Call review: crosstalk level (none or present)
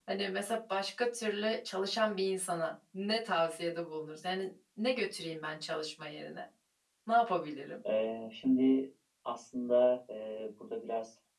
none